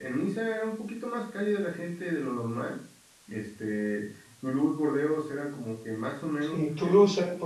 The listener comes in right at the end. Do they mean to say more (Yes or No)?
Yes